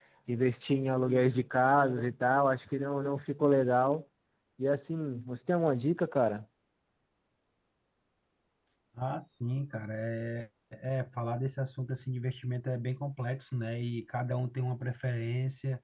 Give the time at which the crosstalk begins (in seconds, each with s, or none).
none